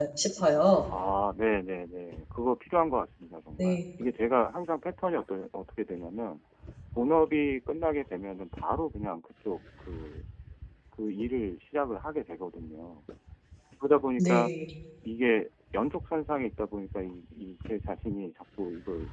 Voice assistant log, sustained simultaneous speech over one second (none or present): none